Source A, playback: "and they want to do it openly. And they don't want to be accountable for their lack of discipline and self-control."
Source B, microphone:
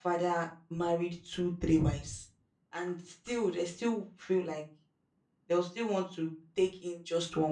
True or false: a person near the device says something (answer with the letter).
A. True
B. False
A